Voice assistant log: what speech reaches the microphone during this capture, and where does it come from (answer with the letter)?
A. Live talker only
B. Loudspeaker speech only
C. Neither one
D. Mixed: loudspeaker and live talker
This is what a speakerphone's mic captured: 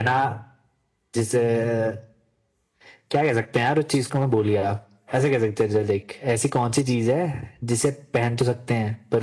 B